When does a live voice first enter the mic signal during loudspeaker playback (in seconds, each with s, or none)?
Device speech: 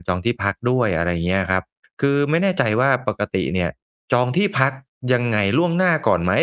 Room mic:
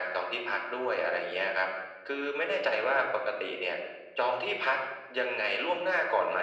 none